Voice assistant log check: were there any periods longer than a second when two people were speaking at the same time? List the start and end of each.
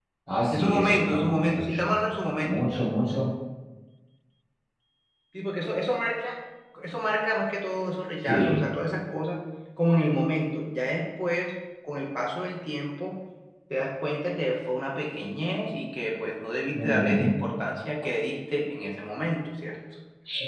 0.5-1.8

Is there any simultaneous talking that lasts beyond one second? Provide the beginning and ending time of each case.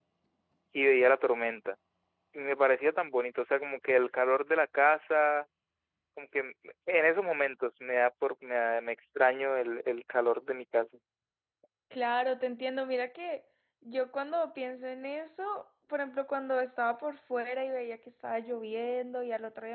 none

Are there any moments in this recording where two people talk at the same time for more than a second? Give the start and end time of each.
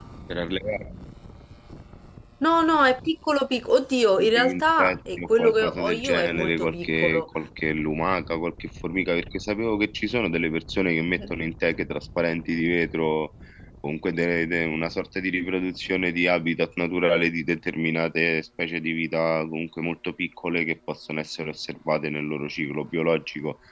4.2-7.3

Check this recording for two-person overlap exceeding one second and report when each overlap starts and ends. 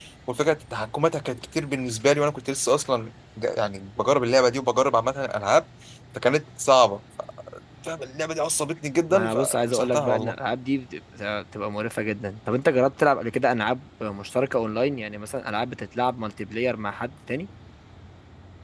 9.1-10.4

